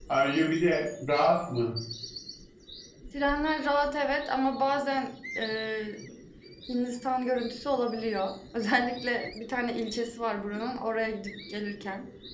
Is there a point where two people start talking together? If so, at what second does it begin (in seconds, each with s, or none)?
none